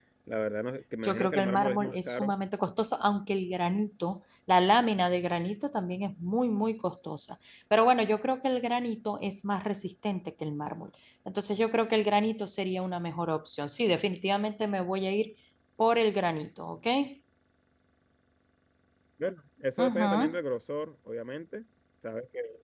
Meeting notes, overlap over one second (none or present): present